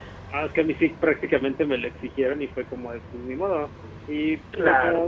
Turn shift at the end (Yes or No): No